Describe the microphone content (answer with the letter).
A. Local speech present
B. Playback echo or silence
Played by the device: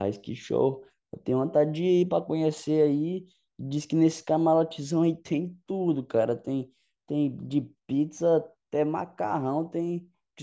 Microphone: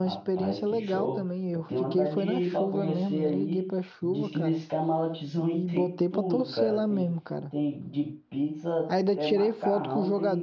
A